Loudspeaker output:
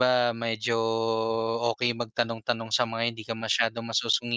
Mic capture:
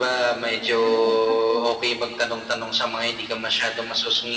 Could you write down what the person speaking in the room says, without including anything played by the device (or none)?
Oo, totoo.